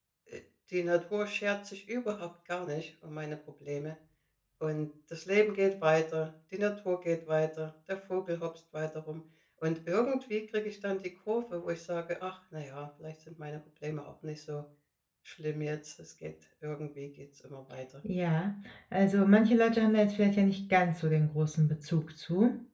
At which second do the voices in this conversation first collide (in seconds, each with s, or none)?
none